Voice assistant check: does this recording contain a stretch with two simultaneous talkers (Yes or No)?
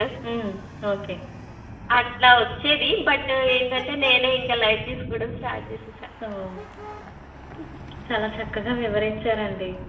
No